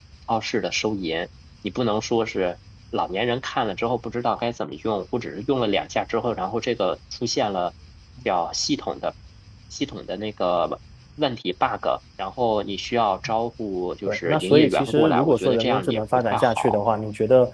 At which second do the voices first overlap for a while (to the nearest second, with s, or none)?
14 s